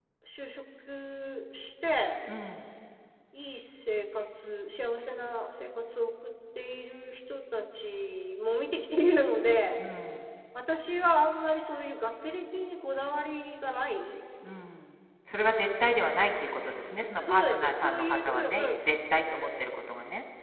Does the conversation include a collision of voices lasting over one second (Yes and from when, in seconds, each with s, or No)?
Yes, from 17.2 s